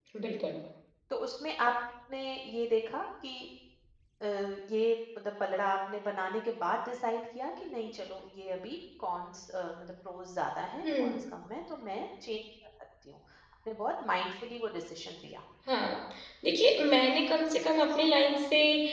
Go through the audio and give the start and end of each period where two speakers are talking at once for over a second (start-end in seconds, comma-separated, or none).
none